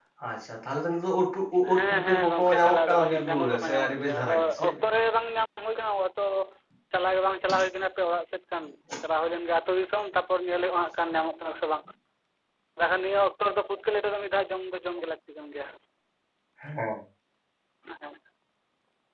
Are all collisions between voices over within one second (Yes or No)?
No